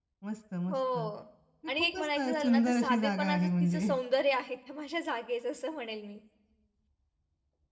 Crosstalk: present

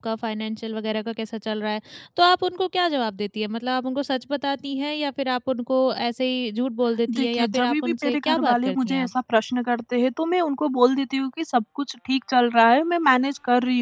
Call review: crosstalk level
present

